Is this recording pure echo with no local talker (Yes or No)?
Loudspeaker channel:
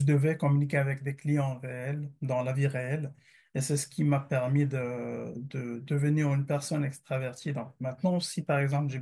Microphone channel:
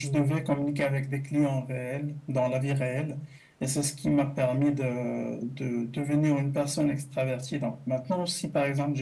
Yes